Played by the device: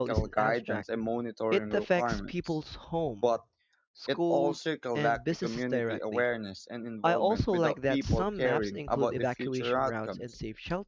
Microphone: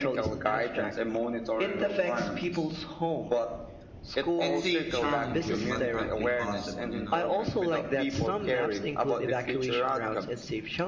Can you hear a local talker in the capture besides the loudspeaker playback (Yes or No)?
Yes